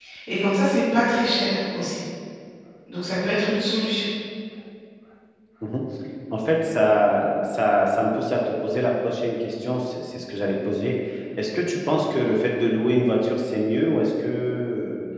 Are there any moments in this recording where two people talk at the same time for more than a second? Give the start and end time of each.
none

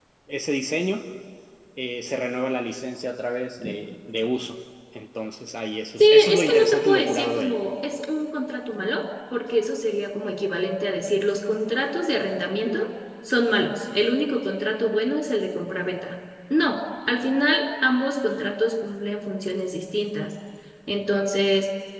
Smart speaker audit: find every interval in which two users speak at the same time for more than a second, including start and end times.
6.0-7.6

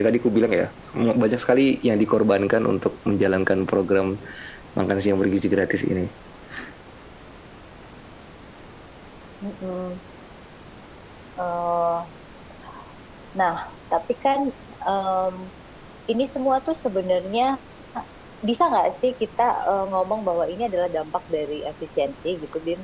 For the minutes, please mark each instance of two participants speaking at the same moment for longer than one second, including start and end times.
none

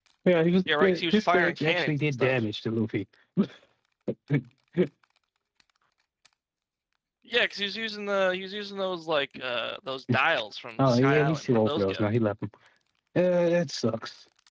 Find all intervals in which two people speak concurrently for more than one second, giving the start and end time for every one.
0.7-2.3, 10.9-12.1

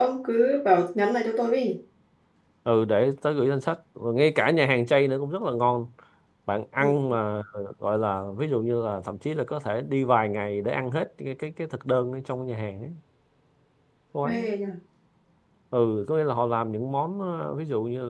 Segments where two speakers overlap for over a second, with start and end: none

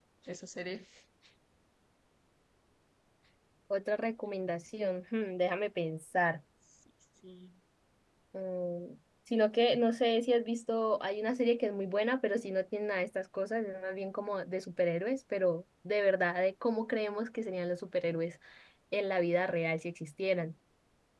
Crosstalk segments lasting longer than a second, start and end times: none

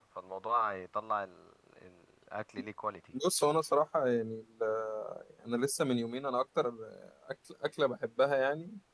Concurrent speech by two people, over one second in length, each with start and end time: none

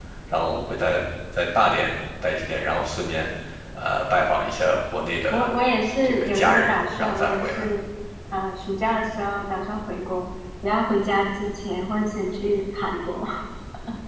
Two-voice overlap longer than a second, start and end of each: 6.0-7.7

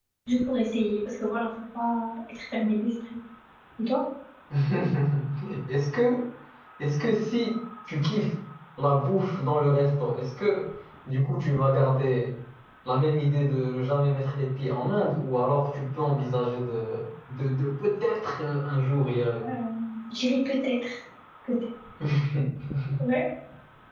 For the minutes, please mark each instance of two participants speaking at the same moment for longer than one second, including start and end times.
none

